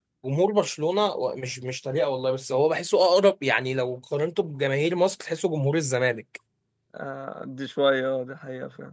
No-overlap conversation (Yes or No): Yes